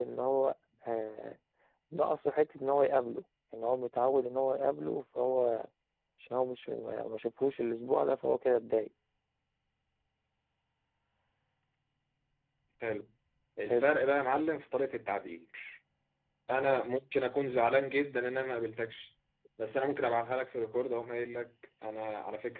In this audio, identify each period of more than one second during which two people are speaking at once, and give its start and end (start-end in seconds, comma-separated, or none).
none